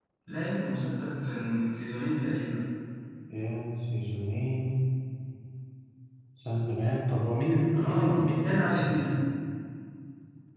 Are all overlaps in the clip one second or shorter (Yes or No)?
No